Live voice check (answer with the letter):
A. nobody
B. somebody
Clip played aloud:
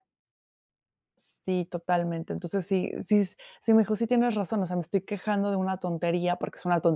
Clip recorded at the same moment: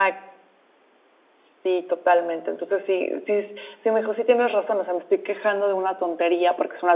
A